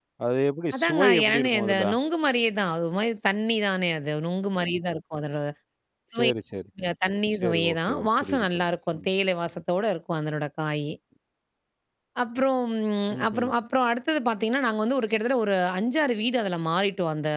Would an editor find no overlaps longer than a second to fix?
No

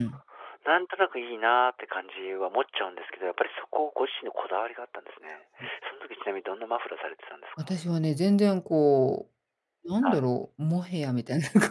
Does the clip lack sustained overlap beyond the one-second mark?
Yes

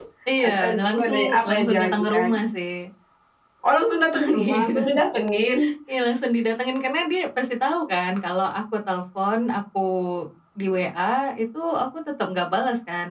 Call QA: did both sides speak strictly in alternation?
No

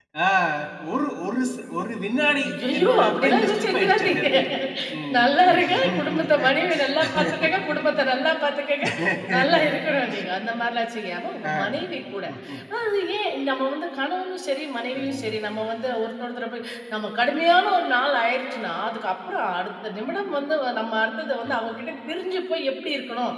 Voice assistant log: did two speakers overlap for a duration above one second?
Yes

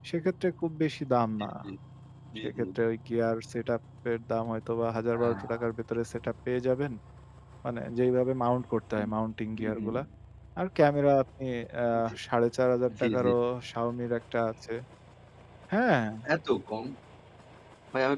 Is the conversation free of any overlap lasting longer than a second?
Yes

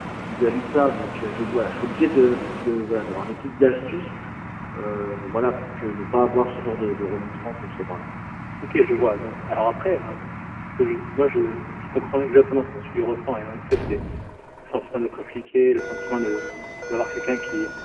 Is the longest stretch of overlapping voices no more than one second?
Yes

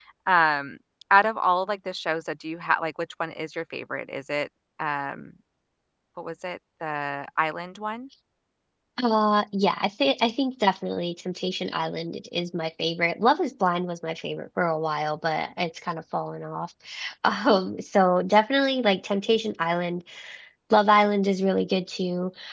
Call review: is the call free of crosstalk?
Yes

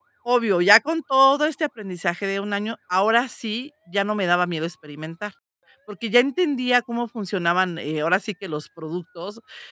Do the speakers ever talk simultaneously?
No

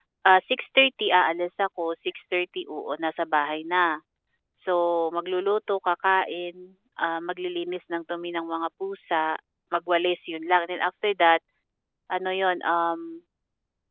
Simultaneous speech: No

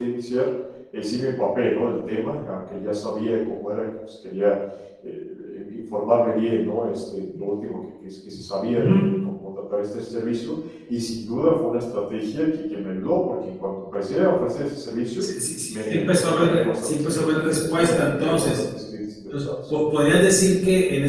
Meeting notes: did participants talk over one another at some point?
Yes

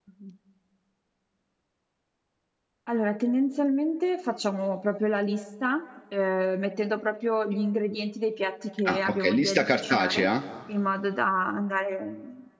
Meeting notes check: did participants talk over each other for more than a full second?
Yes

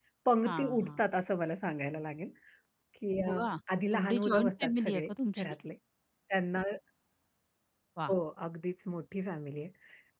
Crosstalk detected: Yes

